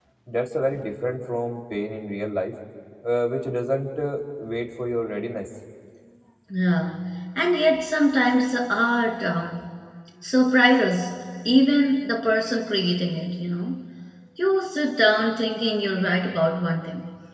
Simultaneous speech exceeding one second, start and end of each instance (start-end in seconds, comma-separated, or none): none